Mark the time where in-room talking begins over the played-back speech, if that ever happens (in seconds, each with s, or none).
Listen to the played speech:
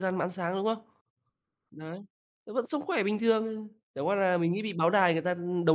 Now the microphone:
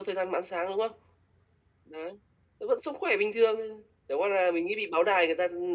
none